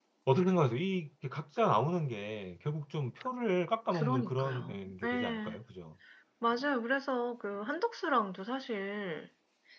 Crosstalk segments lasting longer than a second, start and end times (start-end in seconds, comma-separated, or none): 3.9-5.6